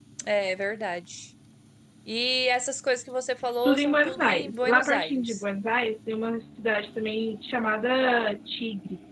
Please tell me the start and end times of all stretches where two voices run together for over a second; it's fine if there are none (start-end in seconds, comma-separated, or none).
3.6-5.4